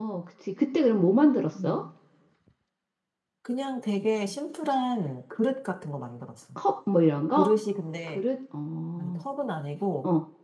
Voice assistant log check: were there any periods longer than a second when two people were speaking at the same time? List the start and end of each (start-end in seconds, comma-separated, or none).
none